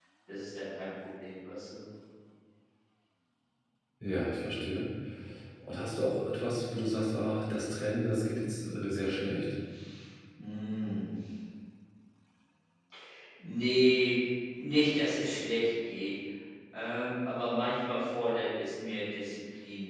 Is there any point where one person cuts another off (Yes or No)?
No